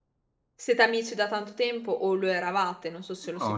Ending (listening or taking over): taking over